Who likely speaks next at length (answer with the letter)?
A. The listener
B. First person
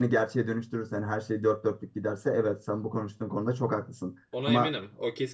A